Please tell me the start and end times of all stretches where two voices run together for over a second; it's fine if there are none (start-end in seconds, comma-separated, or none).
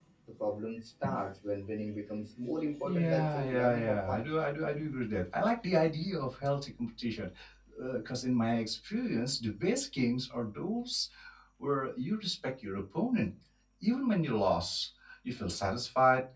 2.8-4.2